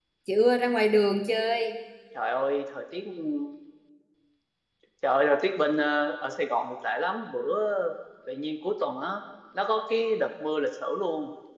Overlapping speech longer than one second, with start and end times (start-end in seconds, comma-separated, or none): none